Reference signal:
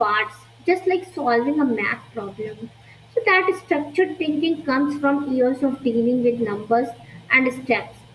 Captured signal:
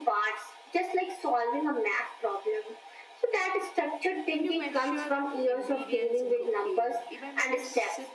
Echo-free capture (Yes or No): No